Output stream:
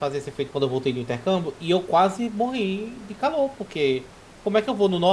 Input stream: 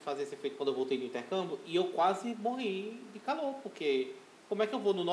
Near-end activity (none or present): none